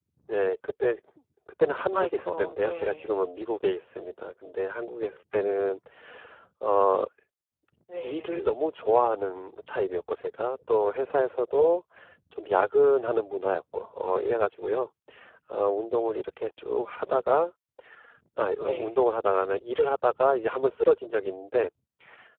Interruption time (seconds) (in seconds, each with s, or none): 1.9 s